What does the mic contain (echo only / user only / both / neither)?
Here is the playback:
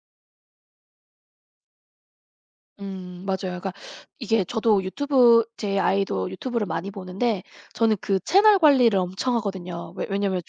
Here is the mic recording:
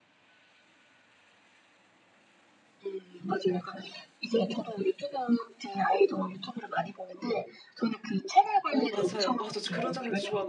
both